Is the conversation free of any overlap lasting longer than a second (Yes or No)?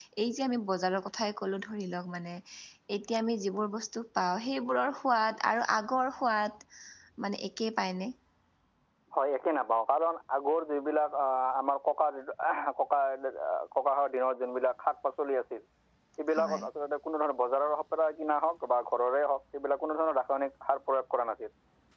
Yes